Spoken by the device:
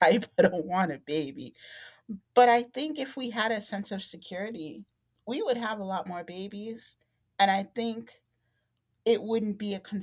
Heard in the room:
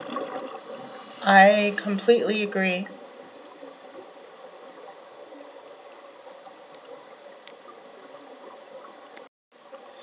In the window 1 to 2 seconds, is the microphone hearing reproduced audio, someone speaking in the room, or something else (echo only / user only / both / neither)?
user only